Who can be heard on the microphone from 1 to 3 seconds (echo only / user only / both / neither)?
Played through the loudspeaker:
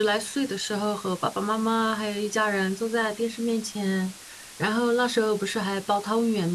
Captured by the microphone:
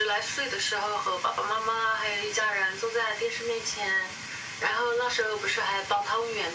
echo only